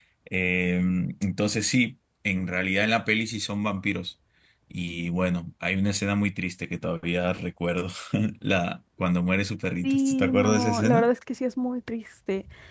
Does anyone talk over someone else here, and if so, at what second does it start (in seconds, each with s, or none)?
9.8 s